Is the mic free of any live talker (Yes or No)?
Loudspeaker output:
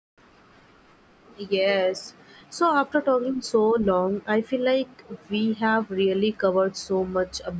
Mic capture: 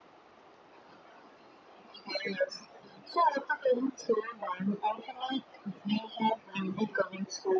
Yes